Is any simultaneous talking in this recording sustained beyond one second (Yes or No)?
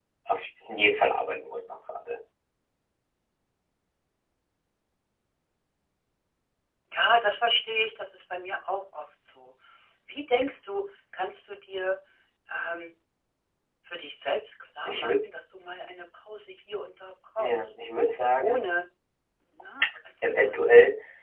No